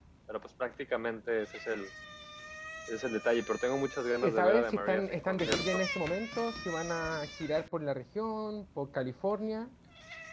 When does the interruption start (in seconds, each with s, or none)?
4.2 s